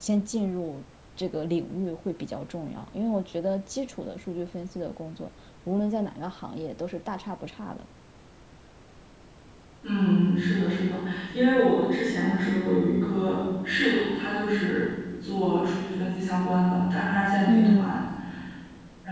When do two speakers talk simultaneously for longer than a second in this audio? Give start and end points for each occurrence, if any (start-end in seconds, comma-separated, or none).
none